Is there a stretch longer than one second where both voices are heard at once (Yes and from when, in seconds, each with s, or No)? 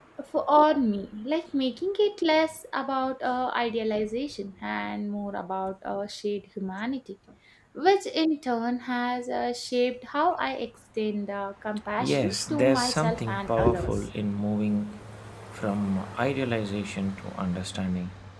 Yes, from 12.0 s